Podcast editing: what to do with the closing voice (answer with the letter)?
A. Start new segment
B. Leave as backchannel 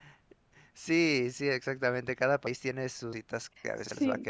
A